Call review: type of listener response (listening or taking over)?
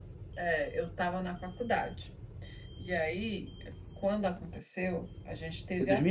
taking over